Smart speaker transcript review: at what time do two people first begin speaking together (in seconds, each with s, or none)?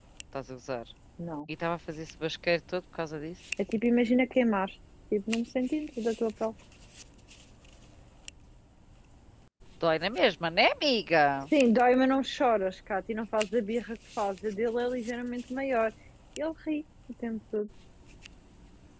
none